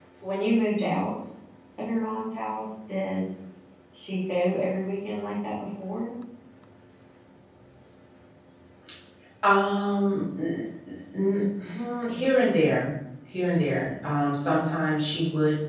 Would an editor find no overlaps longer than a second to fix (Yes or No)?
Yes